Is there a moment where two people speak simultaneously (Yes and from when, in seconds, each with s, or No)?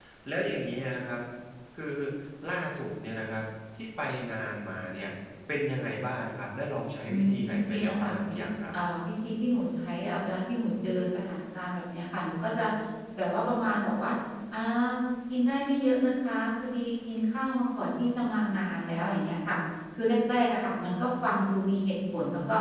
Yes, from 7.1 s